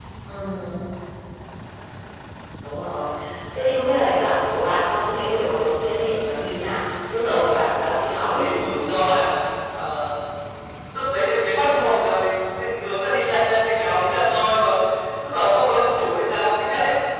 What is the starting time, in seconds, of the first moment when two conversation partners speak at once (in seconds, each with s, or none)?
7.3 s